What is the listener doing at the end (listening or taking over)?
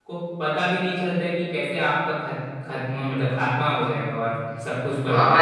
taking over